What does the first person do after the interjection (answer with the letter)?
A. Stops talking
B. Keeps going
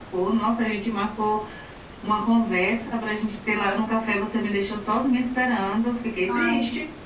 A